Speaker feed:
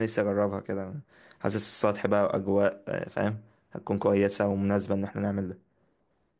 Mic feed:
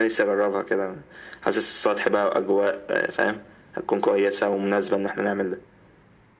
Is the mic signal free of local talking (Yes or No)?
Yes